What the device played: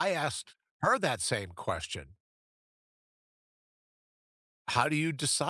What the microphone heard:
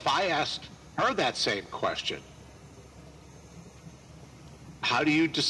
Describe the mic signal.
echo only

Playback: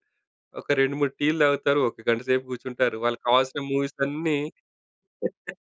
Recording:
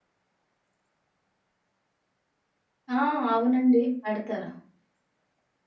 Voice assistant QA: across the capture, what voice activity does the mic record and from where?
user only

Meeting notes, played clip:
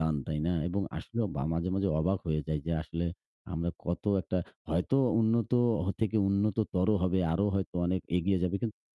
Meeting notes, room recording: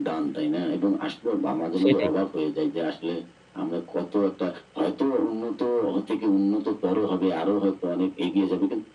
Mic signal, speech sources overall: both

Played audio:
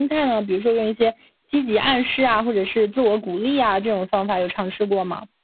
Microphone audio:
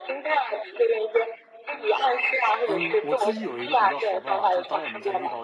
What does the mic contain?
both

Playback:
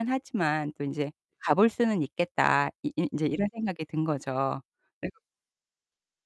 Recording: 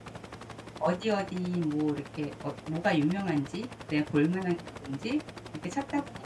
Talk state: user only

